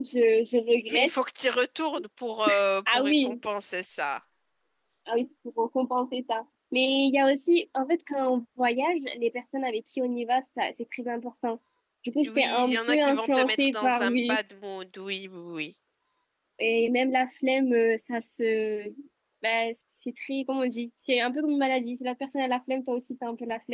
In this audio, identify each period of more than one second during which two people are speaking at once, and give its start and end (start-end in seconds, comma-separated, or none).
12.2-14.4